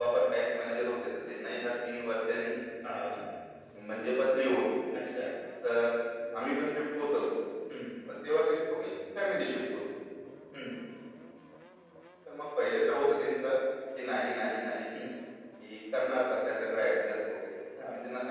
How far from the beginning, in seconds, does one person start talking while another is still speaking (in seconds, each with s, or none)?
none